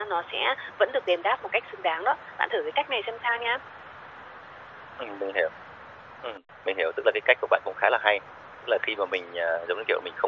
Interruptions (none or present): none